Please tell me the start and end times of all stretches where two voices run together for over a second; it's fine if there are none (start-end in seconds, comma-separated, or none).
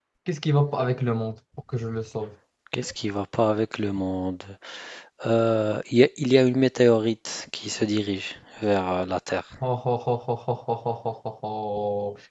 none